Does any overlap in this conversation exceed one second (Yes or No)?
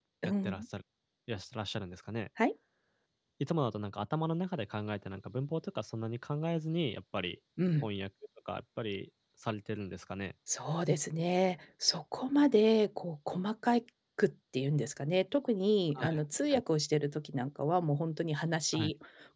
No